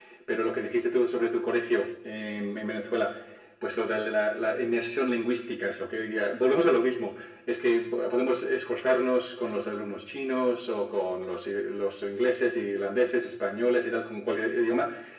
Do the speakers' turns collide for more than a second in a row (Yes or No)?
No